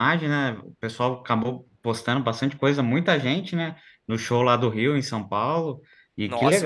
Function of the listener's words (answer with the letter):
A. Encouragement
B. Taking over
B